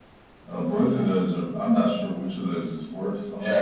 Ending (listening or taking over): taking over